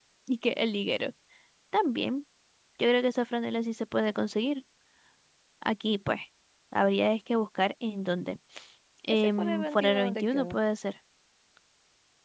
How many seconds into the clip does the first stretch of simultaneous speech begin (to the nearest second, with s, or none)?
9 s